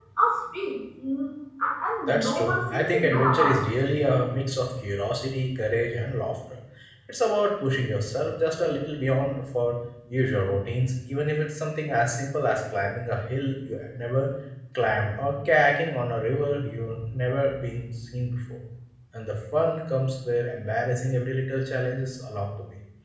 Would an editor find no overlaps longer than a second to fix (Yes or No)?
No